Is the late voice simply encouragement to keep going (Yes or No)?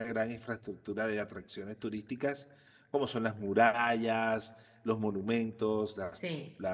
Yes